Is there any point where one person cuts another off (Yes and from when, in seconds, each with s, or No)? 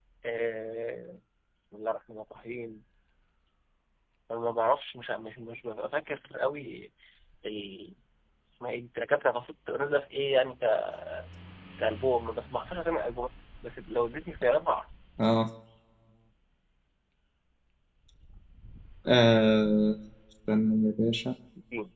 No